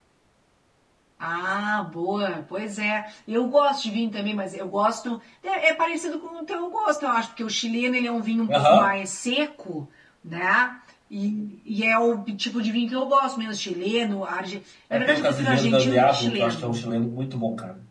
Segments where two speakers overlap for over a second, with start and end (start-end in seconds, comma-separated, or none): 14.9-16.8